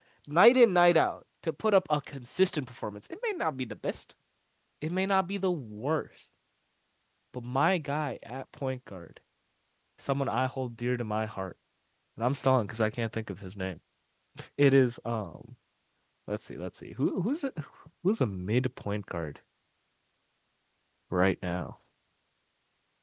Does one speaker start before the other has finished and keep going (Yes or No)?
No